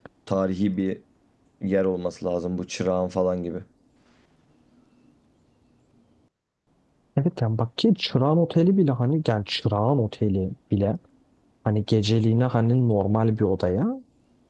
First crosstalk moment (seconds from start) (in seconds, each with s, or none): none